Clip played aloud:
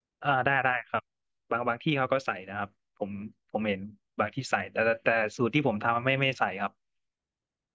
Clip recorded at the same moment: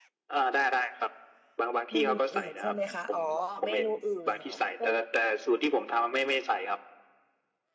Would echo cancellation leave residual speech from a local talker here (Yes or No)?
Yes